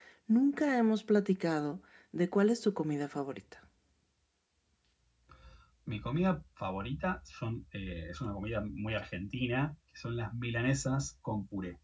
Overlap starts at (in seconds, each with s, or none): none